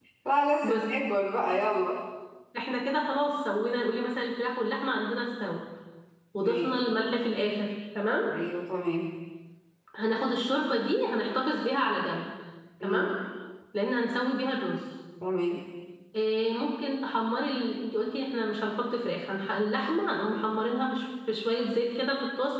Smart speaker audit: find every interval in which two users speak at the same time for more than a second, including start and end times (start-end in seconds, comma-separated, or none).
none